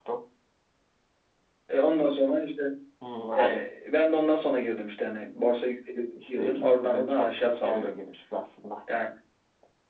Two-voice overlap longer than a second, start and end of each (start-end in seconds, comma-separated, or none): 6.3-8.0